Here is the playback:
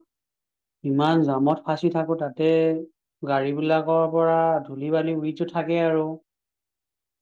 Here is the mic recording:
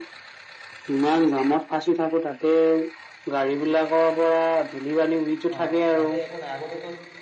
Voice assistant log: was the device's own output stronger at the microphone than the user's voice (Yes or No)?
Yes